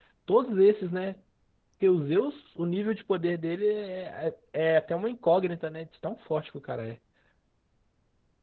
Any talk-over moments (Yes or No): No